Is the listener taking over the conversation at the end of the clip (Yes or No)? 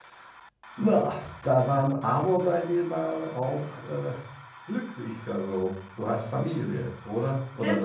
Yes